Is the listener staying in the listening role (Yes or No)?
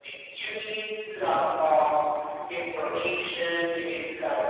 Yes